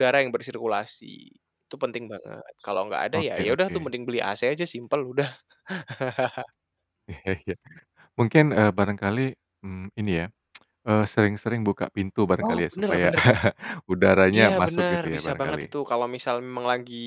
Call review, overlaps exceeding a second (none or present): present